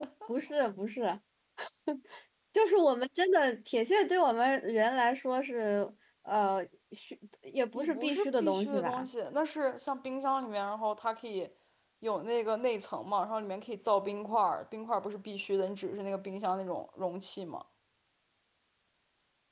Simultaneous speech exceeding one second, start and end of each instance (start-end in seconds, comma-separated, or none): 7.8-9.1